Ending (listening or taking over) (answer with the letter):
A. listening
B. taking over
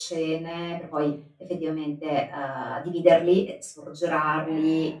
A